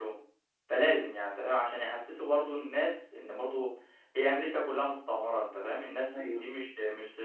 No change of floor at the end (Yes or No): Yes